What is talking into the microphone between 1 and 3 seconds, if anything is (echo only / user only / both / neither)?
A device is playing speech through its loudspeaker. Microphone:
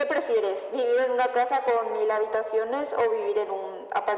echo only